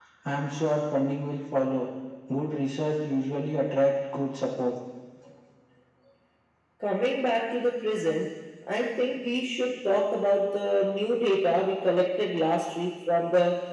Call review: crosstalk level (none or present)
none